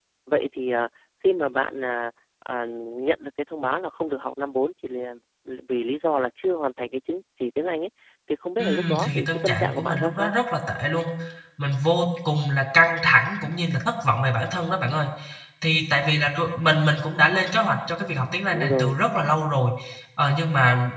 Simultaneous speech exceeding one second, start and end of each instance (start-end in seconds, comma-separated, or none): 8.6-10.3